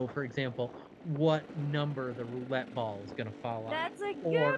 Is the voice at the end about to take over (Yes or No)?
Yes